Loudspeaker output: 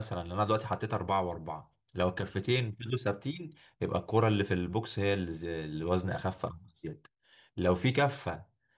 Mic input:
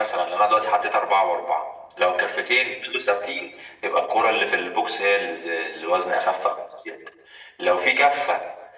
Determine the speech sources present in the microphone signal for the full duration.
echo only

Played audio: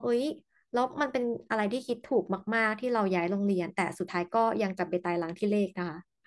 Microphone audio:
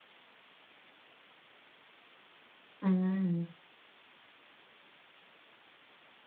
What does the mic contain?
user only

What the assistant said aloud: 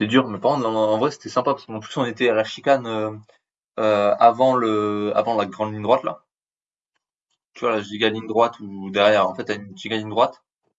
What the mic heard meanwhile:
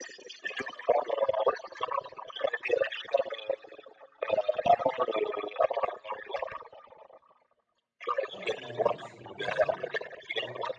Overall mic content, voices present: both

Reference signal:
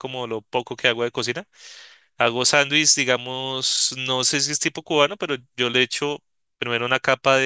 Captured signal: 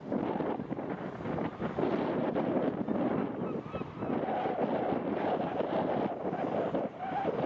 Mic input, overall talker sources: neither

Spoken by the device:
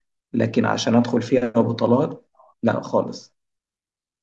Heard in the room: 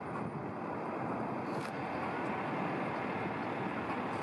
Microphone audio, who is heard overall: neither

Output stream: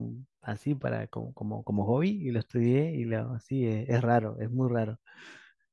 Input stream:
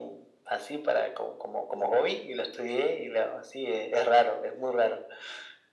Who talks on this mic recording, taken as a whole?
echo only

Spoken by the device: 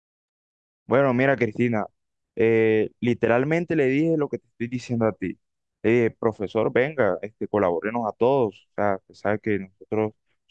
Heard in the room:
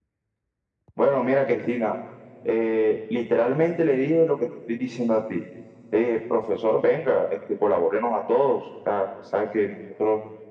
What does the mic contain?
echo only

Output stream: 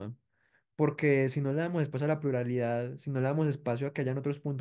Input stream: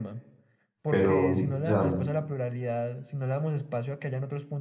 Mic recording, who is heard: both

